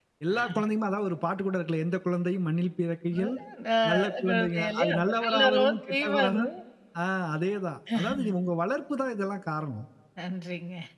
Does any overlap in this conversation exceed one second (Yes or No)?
Yes